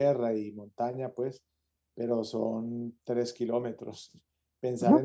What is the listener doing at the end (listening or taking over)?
taking over